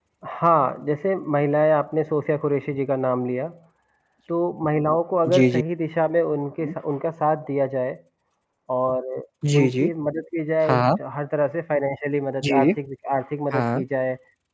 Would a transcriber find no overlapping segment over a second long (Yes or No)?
Yes